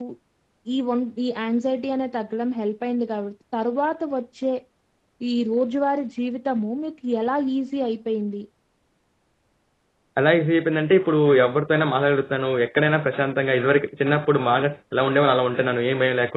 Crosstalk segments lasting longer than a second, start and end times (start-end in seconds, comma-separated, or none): none